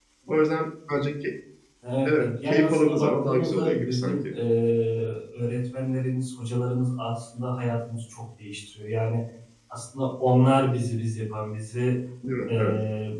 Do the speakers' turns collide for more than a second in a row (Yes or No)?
Yes